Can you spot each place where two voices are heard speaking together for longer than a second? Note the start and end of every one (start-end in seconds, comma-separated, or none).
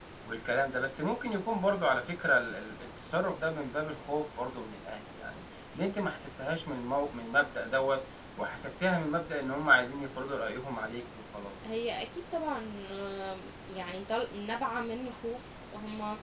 none